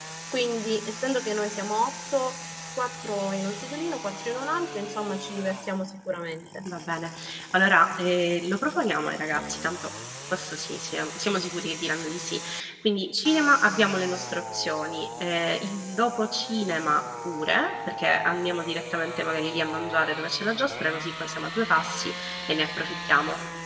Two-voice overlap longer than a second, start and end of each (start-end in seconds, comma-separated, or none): none